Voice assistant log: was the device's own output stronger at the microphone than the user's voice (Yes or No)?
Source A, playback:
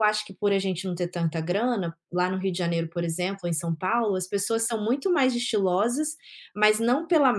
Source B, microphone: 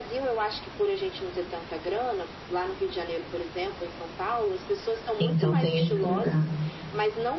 No